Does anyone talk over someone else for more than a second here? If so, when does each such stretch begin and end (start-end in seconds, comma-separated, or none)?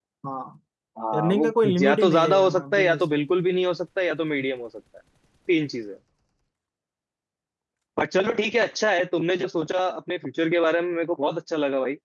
1.2-3.2